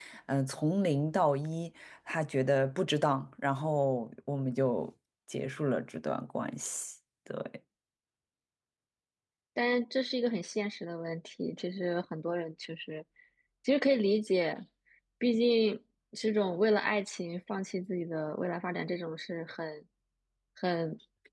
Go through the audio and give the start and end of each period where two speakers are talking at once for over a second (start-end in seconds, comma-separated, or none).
none